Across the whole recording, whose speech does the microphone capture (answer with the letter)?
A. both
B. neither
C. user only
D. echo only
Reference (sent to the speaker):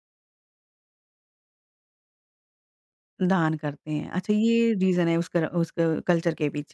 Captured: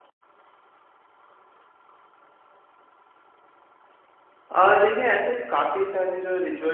C